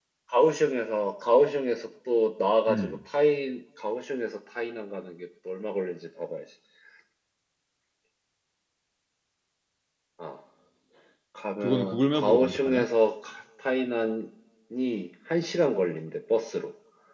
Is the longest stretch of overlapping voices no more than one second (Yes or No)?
No